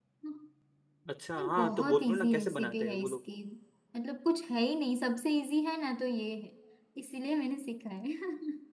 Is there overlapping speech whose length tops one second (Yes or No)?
Yes